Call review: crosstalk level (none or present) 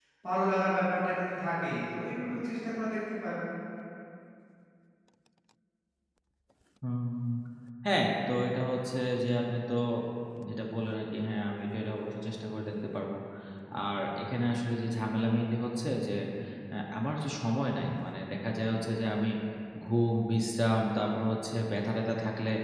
none